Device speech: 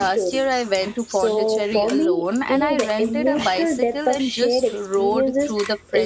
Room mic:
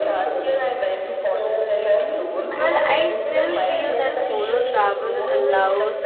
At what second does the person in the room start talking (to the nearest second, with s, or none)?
3 s